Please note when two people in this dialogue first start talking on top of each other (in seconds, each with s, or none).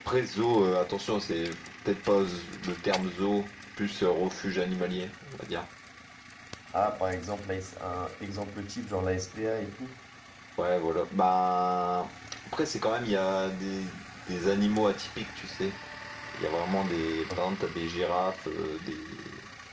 none